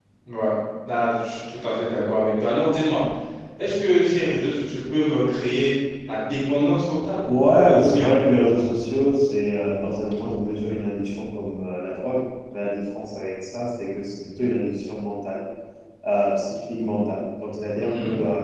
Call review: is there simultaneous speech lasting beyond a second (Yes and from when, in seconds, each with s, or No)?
No